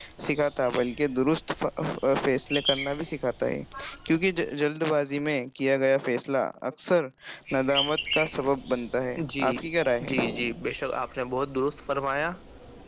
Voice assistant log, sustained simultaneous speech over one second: none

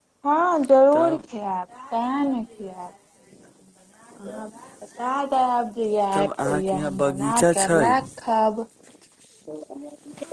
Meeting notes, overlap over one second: present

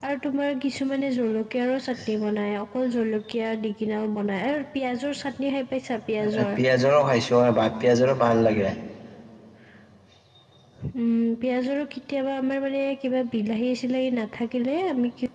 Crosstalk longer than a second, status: none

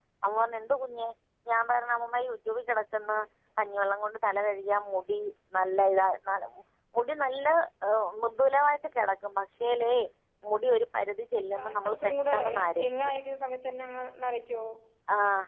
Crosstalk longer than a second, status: present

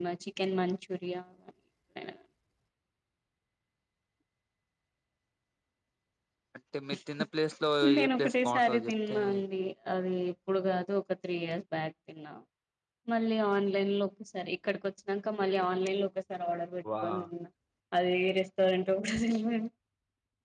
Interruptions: present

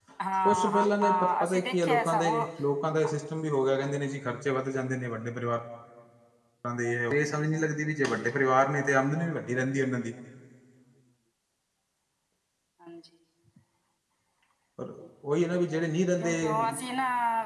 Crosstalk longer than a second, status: present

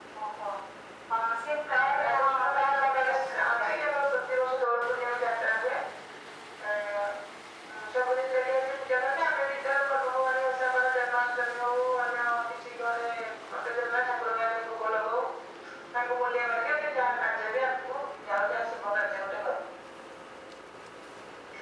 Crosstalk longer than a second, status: present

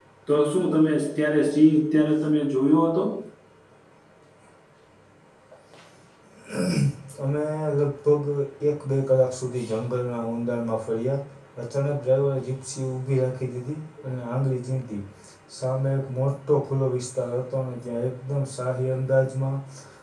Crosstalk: none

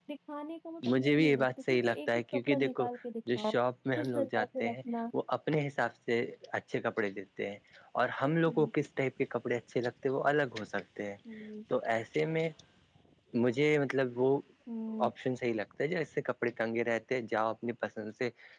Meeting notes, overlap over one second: present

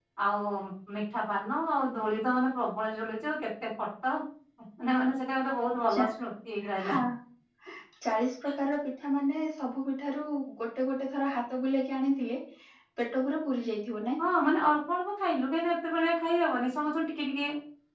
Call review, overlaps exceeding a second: none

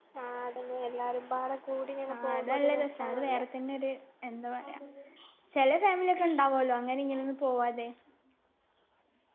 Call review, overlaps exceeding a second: present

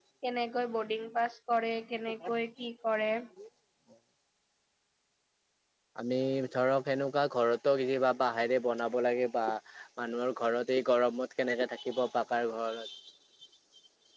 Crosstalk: none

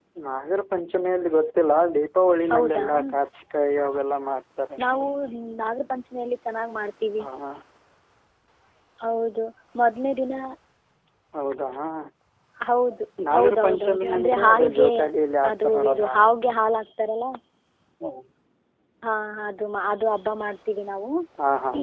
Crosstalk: present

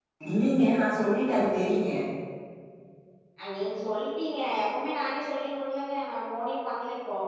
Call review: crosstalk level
none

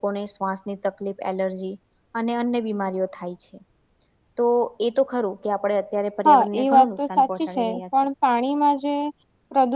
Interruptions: present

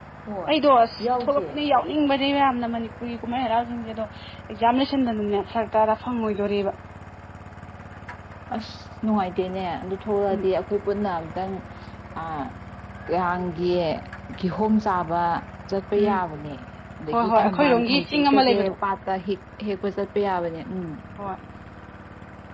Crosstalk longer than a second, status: present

